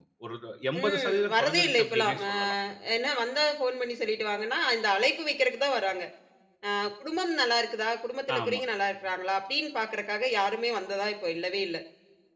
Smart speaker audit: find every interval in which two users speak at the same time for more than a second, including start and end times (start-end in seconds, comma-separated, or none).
0.8-2.3